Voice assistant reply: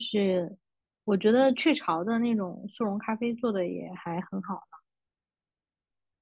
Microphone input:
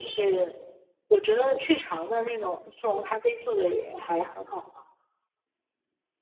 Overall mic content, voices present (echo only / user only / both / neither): echo only